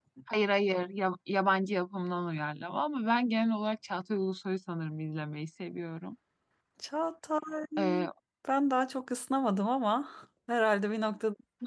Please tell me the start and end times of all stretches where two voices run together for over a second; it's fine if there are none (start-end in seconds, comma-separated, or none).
none